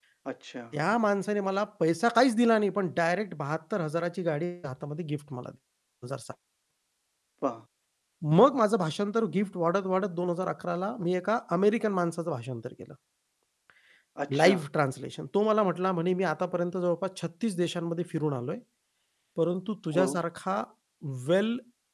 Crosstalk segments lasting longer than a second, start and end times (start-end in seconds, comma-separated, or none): none